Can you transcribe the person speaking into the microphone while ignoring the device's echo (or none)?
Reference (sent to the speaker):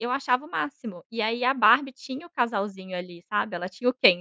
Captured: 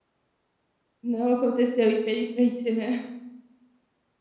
Não aconteceu, infelizmente, né?